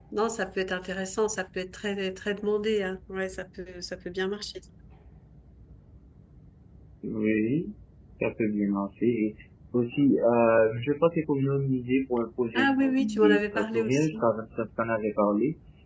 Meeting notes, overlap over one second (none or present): present